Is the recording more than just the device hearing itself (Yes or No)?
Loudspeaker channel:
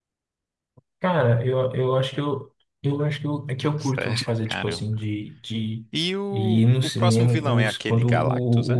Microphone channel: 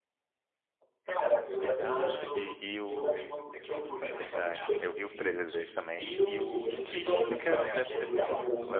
Yes